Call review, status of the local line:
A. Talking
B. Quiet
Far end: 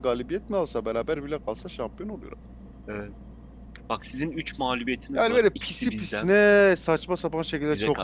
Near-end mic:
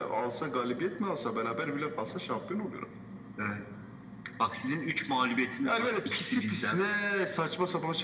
B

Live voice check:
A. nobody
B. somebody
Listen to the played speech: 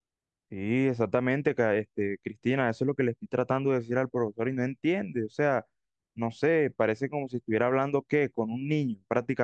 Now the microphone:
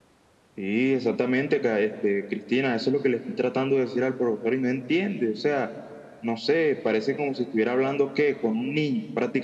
A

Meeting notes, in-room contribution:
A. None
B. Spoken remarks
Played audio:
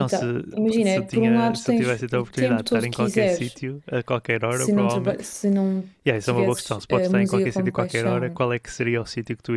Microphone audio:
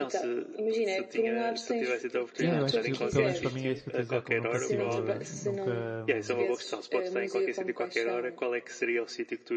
B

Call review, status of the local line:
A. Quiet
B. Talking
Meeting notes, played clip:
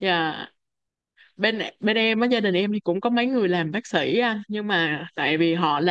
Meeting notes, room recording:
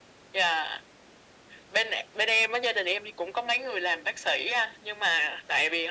A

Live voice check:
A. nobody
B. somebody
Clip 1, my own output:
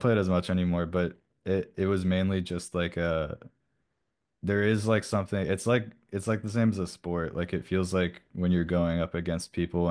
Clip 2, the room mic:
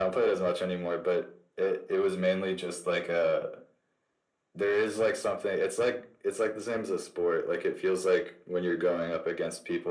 A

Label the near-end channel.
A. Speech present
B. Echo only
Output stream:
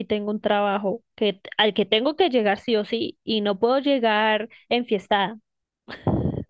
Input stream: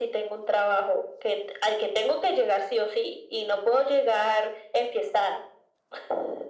B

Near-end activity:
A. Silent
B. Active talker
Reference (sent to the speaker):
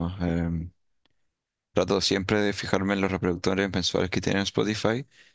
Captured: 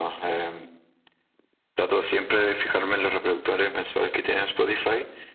A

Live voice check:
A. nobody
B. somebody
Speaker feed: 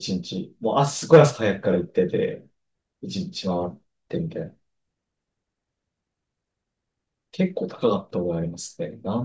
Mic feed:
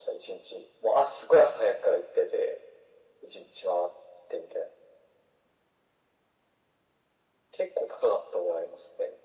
A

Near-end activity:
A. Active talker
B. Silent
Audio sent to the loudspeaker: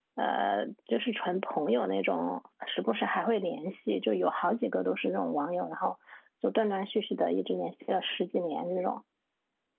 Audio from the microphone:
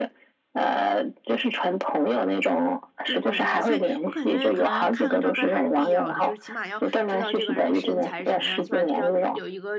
A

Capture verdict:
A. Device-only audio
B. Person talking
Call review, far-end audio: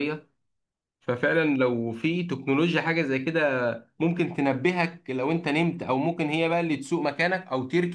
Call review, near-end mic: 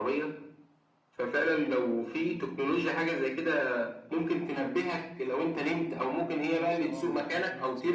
B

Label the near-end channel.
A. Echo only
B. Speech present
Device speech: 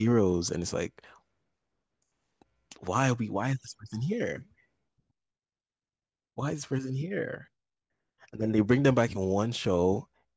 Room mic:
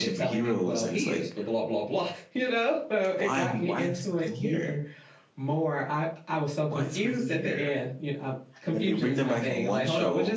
B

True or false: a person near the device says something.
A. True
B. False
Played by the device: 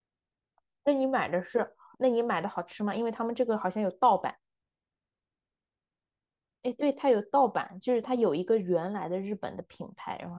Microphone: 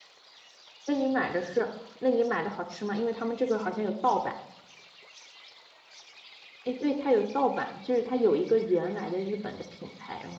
B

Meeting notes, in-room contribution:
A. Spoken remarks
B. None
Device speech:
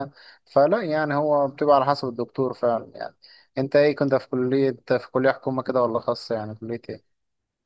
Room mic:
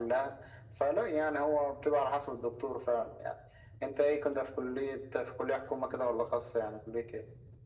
B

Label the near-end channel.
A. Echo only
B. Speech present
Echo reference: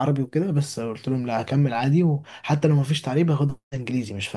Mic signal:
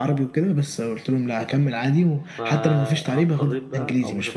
B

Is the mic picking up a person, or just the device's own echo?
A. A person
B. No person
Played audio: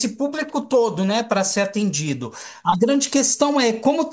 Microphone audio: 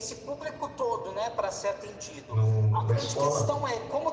A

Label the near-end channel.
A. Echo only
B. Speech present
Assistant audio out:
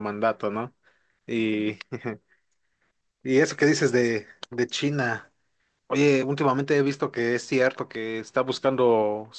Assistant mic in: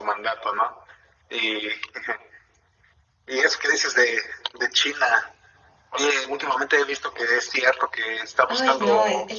B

